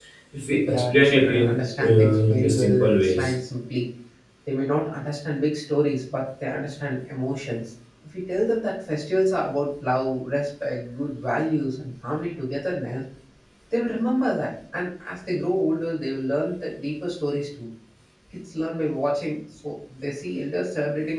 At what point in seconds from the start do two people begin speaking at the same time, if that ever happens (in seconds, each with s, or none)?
0.7 s